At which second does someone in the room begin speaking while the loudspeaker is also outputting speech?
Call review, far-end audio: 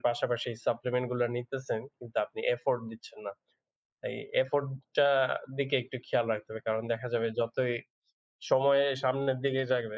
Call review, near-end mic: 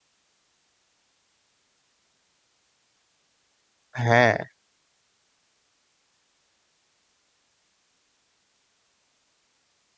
4 s

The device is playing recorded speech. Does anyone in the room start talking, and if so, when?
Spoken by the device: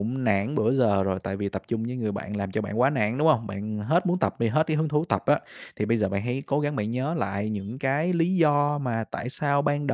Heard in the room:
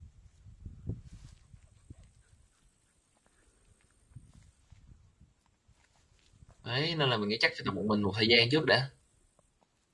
7 s

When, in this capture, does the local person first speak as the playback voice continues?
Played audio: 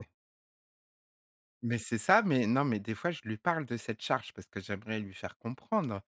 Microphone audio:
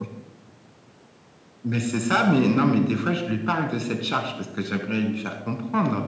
none

